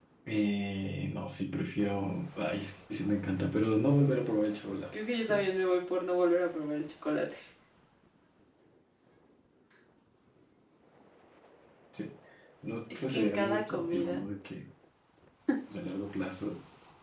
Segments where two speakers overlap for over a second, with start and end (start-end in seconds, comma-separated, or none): 12.9-14.2